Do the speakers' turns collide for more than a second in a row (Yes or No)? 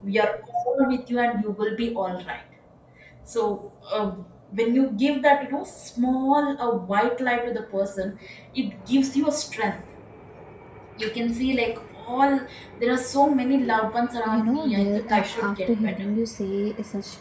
Yes